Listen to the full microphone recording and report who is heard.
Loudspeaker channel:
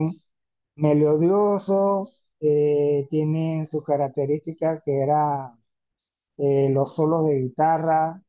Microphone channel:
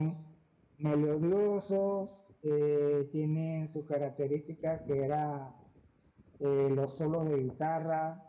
echo only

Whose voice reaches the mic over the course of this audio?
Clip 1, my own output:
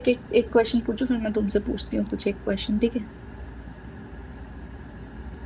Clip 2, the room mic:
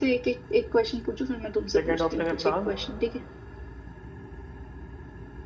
both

